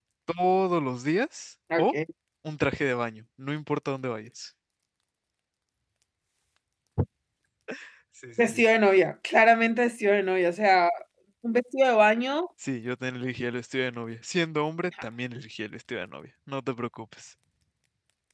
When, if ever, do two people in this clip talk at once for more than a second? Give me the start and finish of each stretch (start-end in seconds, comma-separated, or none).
none